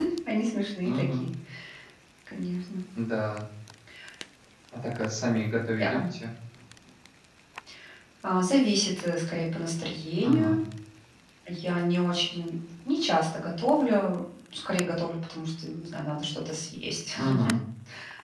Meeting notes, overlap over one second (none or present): none